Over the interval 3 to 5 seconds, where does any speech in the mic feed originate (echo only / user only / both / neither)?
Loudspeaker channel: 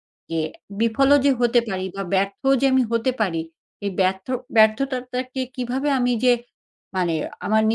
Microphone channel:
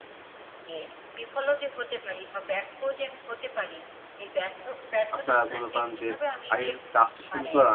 echo only